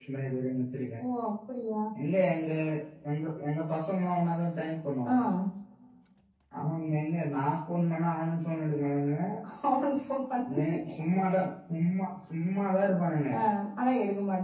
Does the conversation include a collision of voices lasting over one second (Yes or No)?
No